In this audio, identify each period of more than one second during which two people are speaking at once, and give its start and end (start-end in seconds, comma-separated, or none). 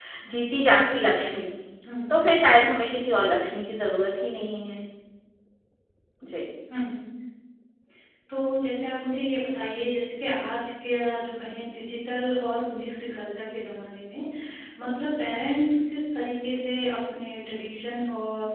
none